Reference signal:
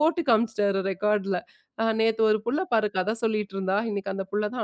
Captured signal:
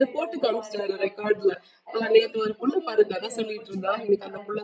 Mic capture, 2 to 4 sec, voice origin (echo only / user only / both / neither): both